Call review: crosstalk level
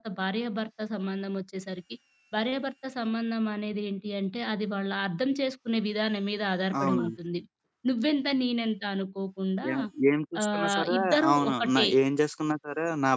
present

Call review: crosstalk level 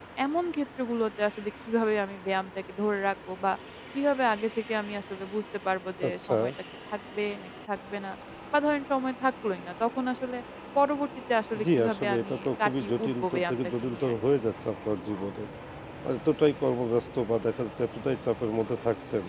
present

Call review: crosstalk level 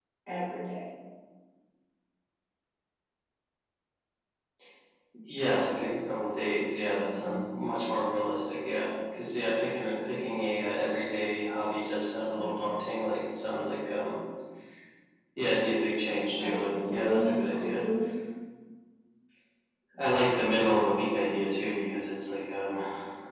present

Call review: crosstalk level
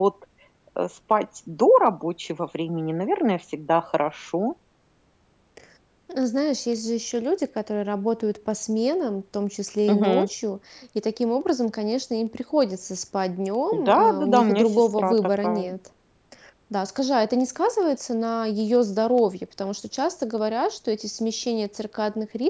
present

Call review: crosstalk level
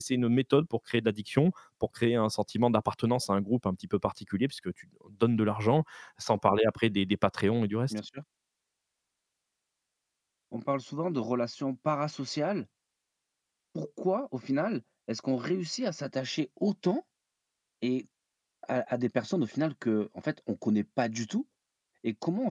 none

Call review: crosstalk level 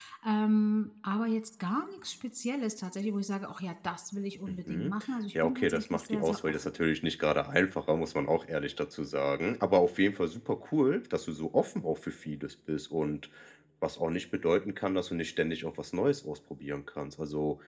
present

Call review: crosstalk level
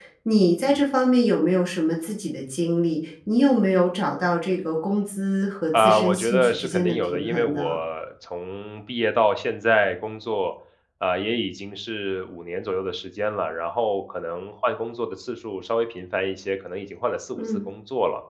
present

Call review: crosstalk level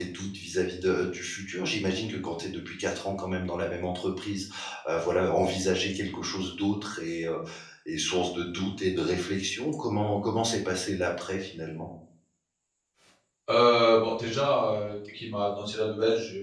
none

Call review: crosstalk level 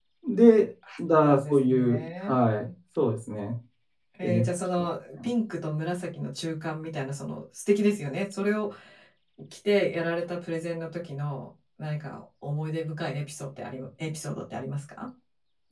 present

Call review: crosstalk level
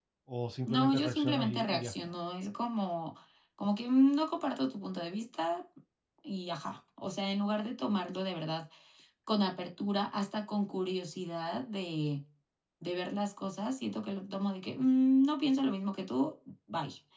present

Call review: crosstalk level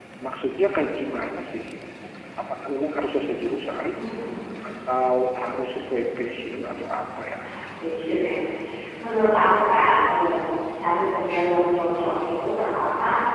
none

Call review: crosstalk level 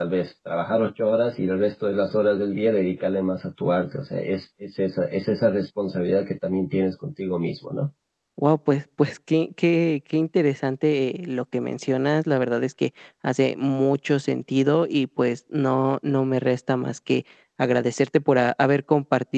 none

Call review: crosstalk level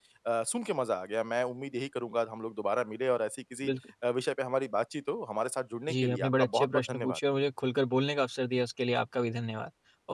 present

